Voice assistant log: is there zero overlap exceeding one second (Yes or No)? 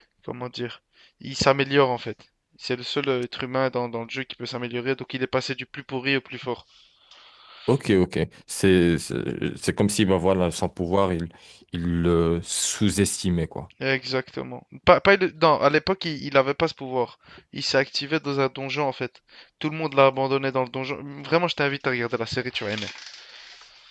Yes